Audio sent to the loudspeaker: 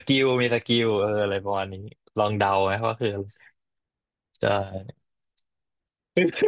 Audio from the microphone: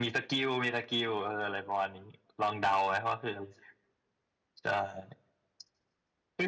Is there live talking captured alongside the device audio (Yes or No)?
No